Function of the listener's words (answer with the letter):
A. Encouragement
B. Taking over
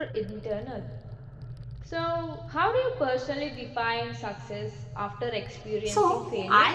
B